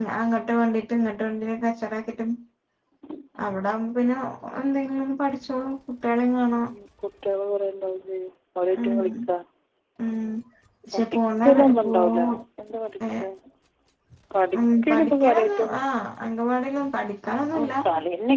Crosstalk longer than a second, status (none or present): present